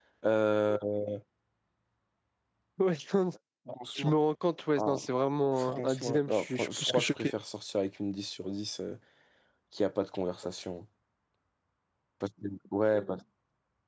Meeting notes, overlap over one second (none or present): present